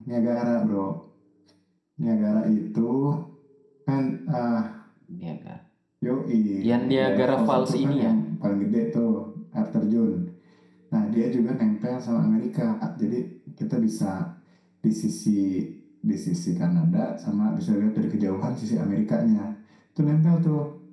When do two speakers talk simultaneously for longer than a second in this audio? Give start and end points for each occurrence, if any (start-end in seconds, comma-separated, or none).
6.8-8.1